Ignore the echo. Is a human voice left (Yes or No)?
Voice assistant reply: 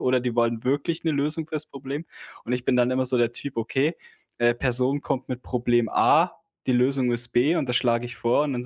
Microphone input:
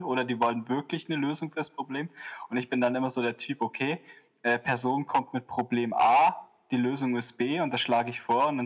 No